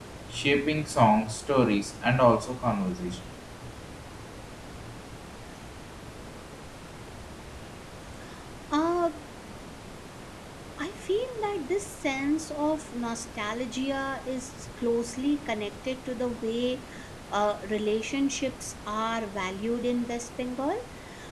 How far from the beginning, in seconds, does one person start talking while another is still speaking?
none

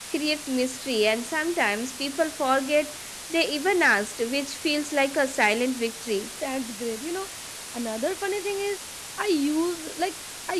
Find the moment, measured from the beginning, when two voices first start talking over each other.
none

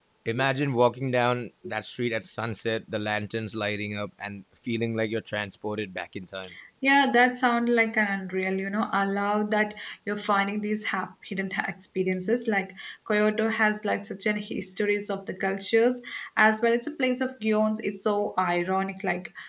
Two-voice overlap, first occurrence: none

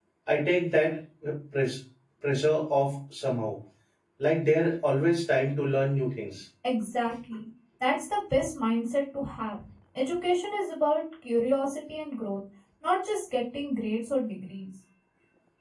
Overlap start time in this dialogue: none

